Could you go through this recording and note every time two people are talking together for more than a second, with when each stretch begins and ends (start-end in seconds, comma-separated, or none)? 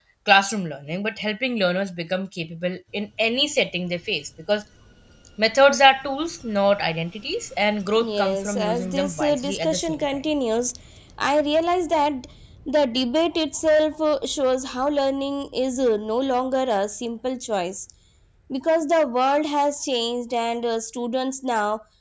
8.0-10.2